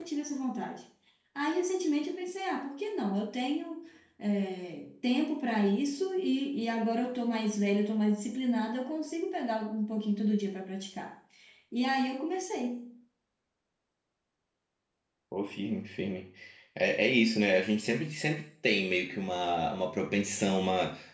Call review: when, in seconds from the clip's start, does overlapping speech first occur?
none

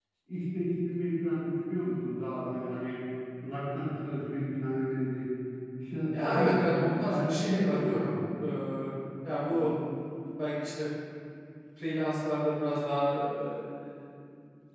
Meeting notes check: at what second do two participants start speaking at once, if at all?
6 s

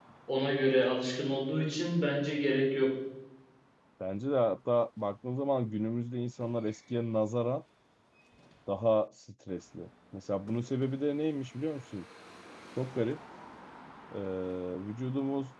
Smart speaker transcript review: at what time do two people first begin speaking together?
none

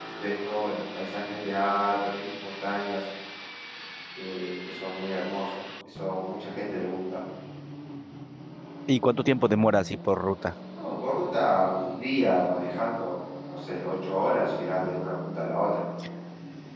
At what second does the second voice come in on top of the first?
none

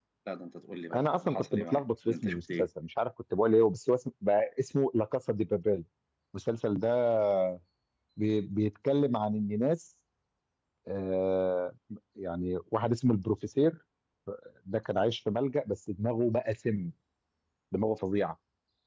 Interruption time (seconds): 1 s

